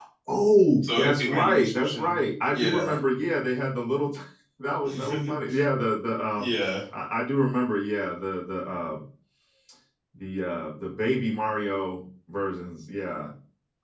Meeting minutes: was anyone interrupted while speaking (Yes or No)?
Yes